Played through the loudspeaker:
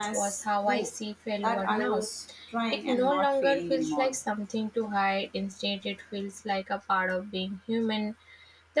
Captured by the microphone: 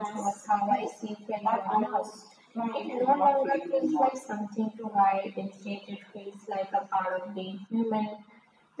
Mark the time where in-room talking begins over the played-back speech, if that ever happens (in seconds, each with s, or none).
none